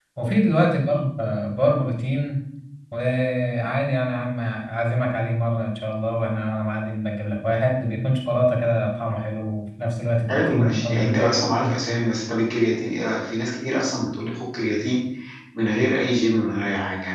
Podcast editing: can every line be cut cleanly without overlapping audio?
No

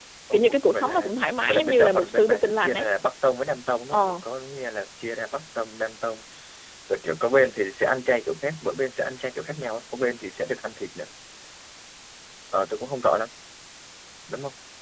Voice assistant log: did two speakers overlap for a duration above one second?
Yes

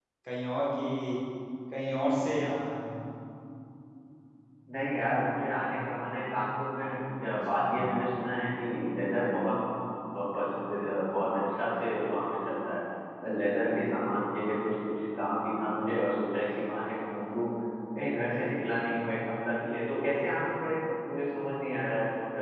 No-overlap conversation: Yes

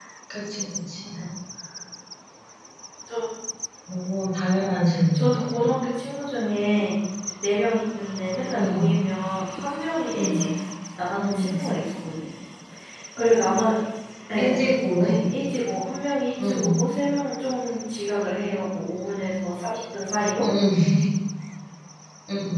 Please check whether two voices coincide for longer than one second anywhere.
Yes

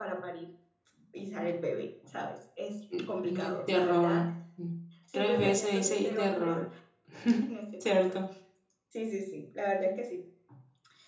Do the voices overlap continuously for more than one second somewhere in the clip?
Yes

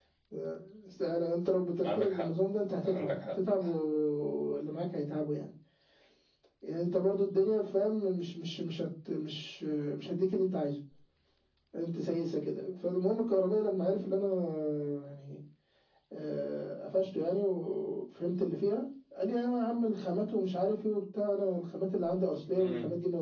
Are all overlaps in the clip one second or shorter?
Yes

